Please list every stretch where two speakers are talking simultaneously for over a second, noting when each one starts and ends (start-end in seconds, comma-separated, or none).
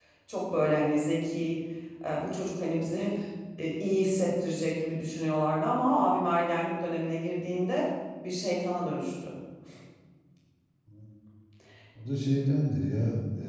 none